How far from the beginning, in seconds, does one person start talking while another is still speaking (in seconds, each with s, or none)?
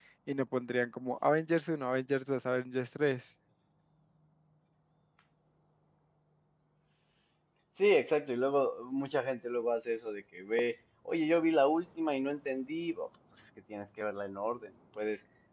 none